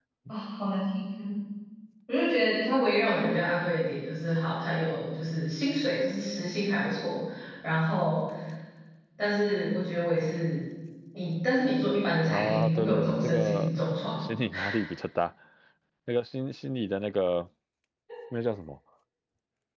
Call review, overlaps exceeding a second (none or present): present